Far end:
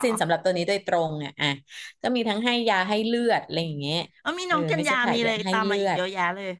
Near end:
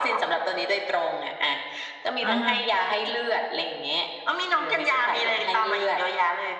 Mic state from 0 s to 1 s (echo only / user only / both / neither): echo only